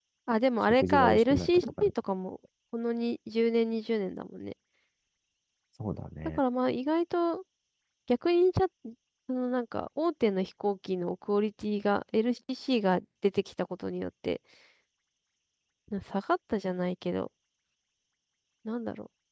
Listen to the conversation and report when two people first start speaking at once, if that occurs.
0.6 s

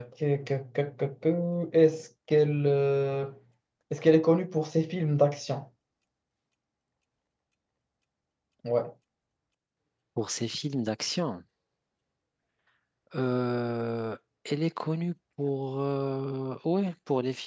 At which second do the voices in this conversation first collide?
none

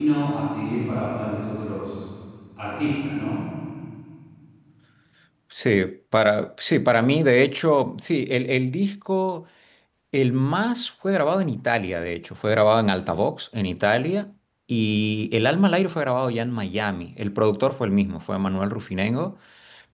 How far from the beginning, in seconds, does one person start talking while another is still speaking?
none

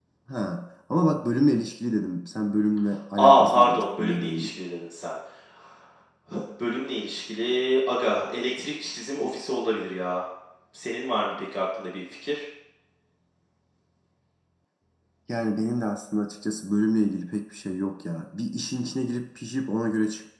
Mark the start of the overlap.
3.2 s

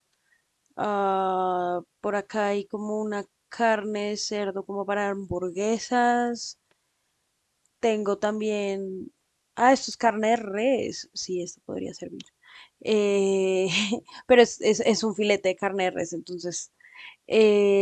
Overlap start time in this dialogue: none

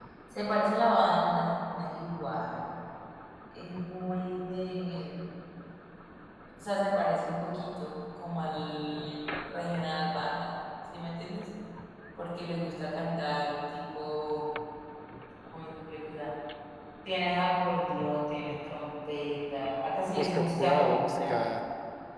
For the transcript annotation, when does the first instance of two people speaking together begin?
20.2 s

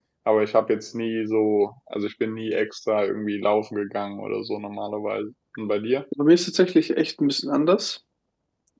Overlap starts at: none

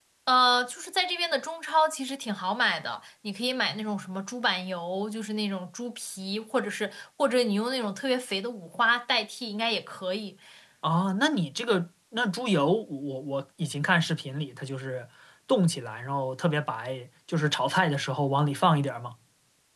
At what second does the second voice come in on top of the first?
none

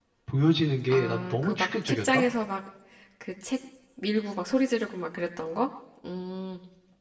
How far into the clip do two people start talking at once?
0.9 s

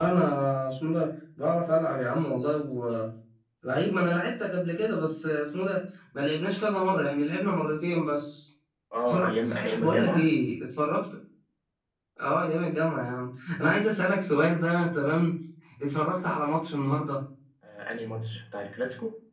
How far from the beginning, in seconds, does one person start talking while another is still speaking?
9.1 s

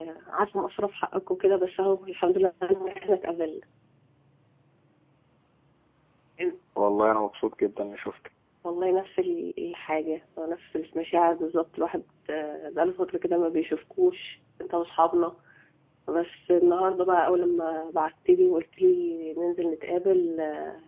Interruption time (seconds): none

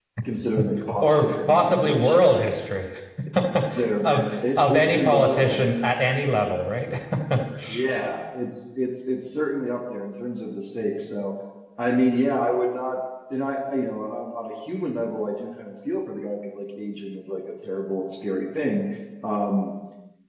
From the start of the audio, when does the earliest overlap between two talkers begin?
1.0 s

